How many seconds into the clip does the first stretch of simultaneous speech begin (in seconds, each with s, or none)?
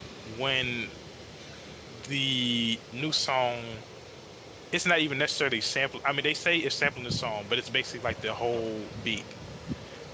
none